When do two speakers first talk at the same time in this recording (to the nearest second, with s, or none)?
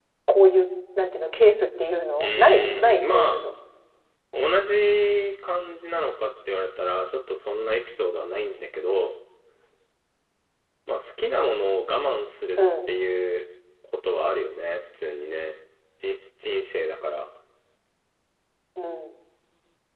2 s